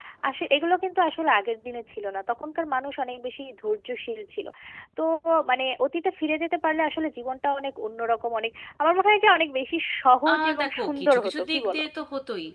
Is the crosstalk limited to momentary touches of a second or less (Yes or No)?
No